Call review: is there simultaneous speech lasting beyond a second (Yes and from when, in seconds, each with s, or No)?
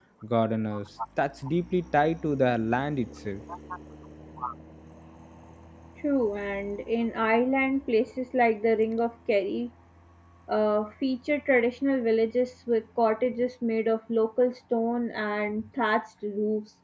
No